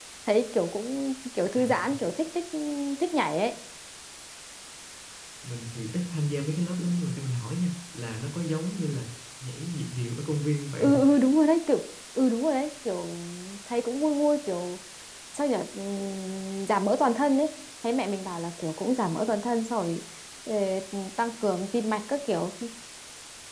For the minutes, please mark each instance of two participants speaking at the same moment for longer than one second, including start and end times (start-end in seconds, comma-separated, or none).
none